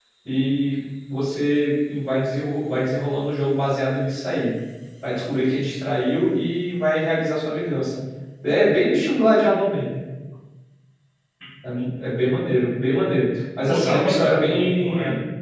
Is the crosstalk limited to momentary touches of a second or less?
No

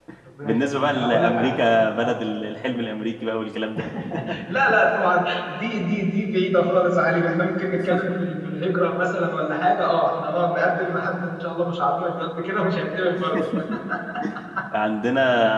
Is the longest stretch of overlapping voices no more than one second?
No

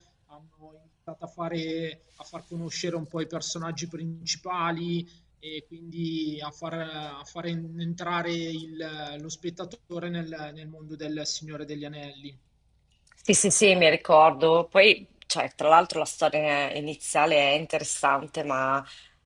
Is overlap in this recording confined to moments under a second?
Yes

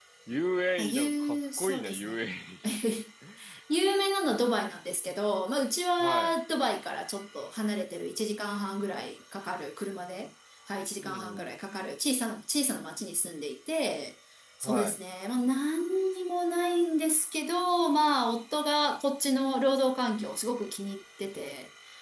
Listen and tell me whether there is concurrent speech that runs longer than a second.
Yes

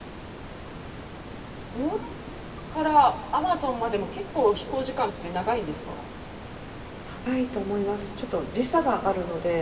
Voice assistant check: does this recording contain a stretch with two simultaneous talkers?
No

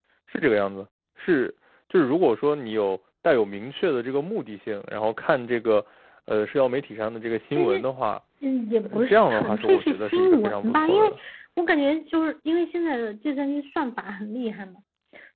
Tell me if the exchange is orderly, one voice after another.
No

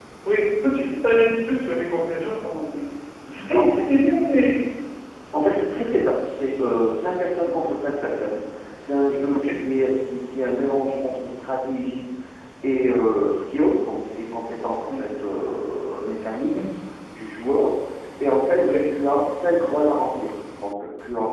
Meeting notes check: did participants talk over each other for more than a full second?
No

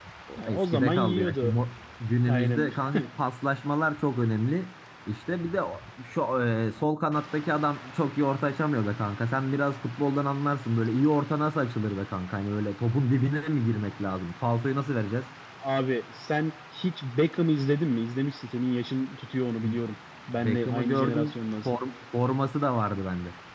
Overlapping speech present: Yes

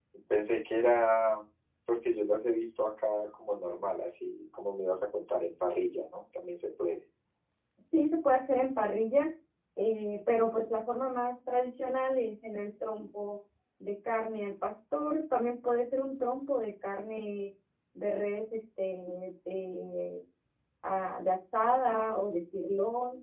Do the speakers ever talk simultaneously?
No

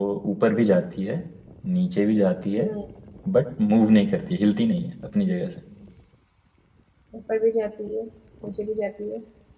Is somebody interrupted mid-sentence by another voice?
No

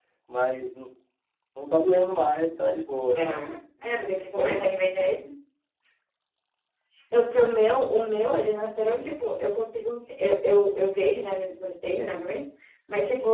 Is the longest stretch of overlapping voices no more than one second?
Yes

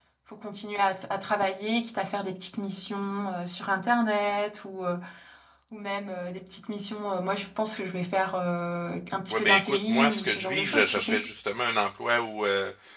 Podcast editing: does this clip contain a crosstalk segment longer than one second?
Yes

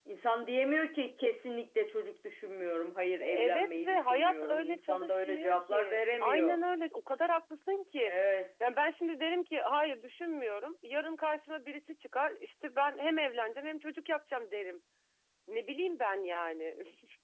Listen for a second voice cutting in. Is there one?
Yes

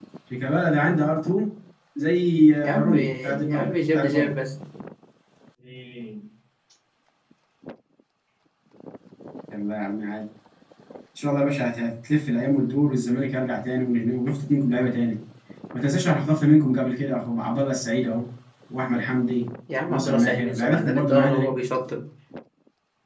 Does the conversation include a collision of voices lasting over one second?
Yes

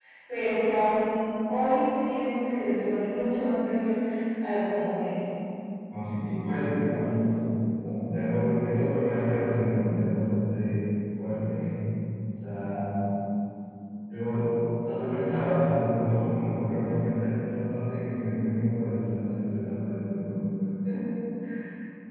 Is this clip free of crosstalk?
Yes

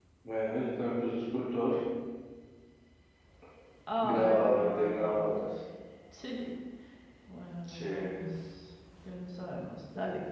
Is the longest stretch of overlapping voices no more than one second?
No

